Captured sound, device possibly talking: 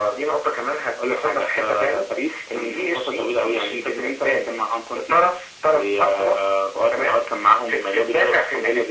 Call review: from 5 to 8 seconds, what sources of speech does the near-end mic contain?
echo only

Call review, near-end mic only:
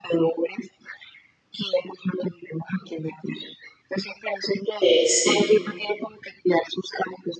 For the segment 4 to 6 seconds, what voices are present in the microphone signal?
both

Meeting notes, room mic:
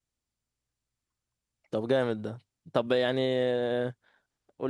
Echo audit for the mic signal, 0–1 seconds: neither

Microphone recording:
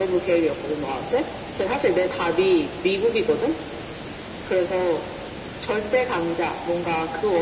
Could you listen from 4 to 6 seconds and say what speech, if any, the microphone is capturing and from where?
echo only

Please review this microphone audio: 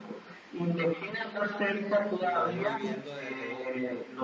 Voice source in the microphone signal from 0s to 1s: echo only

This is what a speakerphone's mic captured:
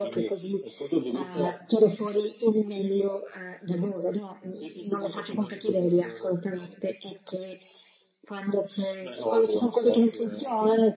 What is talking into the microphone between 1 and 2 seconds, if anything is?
echo only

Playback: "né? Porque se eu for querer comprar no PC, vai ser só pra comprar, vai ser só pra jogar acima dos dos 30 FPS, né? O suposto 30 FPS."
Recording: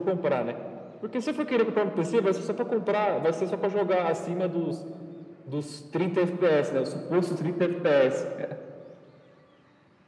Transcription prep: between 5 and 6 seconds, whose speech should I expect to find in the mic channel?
echo only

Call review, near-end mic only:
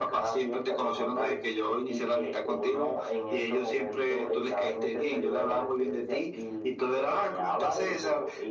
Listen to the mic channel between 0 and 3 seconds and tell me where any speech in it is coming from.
echo only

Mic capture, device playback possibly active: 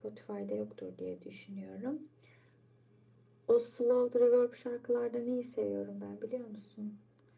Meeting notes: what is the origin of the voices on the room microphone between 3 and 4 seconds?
echo only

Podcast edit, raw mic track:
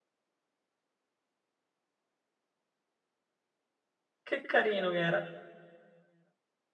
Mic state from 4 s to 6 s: user only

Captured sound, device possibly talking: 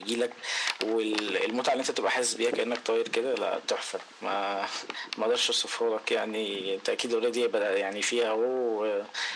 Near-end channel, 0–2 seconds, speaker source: echo only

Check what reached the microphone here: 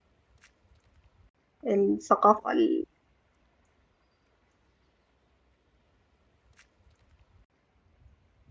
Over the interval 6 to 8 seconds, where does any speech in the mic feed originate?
neither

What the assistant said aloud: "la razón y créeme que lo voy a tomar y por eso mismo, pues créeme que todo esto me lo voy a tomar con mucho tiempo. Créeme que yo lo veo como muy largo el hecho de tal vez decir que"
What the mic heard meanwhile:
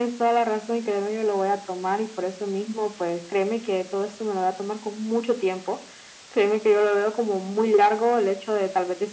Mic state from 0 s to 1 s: echo only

